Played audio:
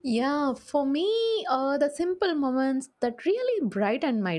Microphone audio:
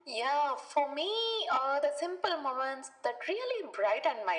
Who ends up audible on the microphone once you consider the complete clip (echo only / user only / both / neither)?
echo only